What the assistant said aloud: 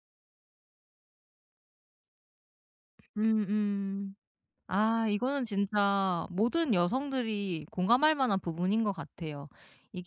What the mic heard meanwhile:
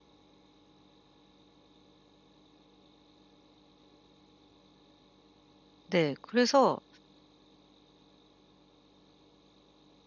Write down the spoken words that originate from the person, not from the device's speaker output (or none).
네. 그래서